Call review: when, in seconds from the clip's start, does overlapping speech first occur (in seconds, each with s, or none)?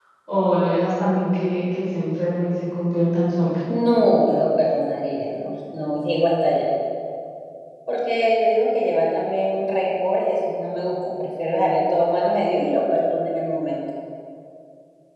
none